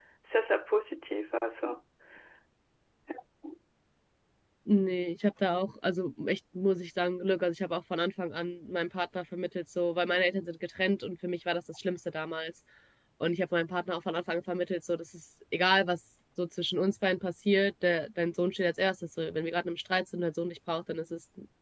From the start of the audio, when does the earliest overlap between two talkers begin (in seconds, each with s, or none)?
none